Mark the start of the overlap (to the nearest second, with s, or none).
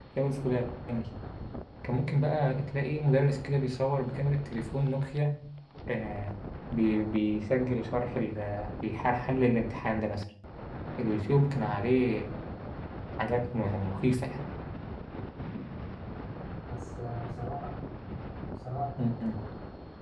none